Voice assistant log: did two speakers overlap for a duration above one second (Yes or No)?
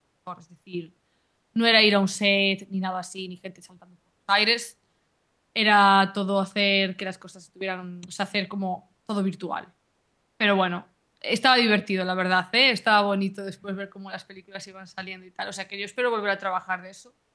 No